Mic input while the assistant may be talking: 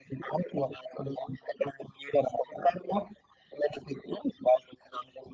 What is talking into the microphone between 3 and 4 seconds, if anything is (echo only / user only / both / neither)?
echo only